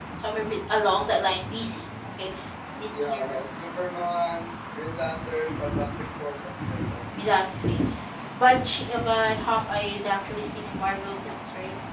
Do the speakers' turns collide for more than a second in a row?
No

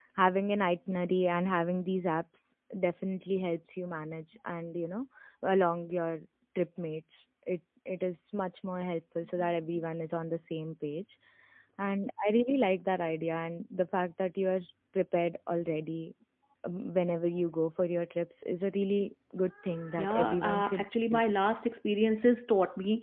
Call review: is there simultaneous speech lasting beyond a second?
Yes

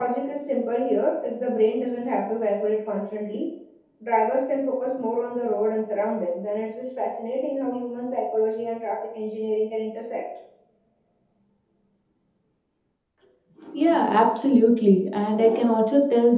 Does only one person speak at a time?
Yes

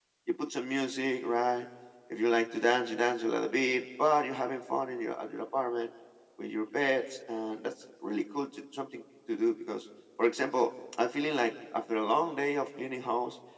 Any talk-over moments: No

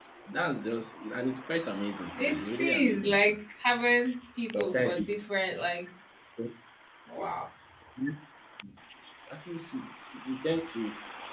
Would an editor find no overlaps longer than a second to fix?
No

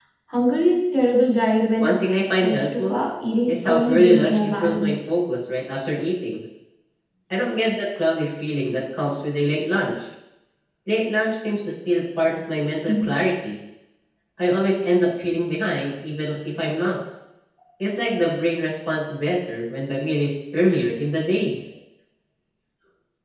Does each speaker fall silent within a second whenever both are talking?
No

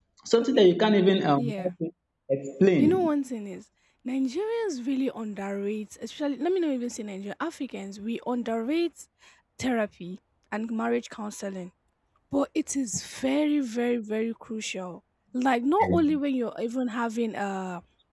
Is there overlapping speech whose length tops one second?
No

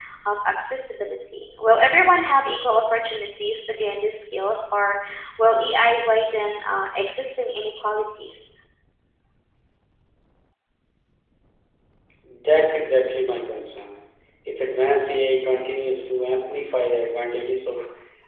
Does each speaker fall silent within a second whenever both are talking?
Yes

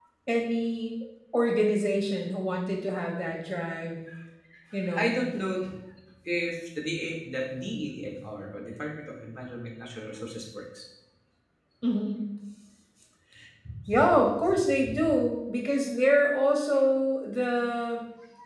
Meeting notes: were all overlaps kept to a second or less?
Yes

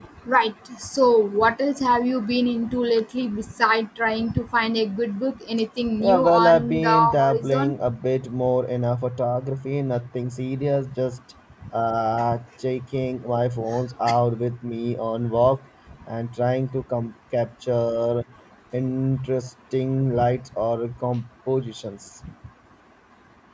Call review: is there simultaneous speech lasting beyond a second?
Yes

